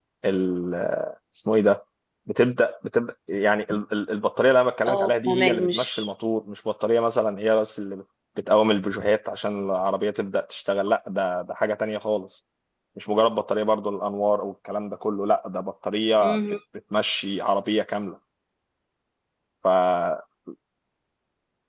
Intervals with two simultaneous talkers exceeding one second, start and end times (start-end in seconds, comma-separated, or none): 4.9-6.1